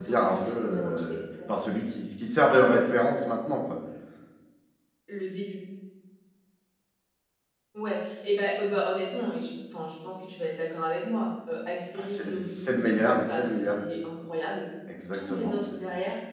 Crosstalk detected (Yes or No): Yes